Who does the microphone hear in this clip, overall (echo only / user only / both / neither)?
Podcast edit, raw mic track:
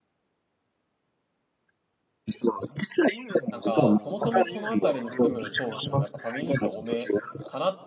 both